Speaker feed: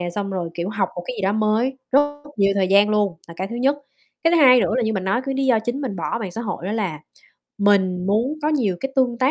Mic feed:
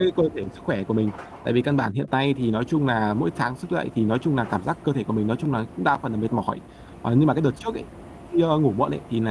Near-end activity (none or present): present